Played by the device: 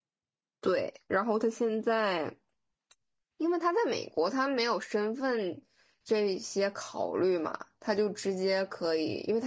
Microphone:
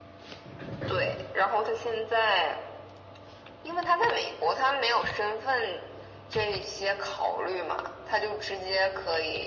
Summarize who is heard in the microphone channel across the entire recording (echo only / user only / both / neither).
echo only